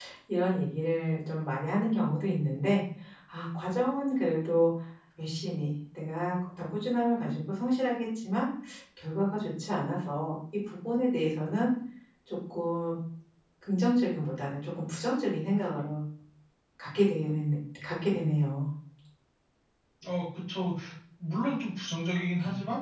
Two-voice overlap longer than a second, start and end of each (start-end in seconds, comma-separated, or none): none